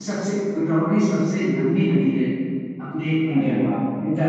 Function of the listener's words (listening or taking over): taking over